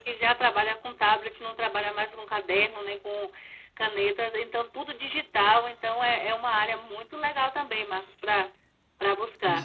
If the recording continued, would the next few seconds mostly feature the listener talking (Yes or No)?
Yes